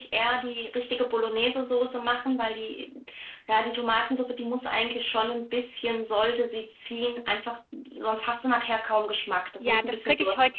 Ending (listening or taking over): taking over